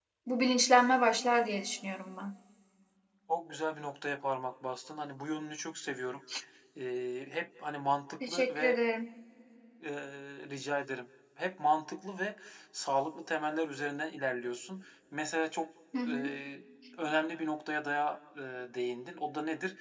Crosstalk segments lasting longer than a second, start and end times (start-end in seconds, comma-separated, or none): none